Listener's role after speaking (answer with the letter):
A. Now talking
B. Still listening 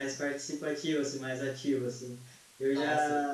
B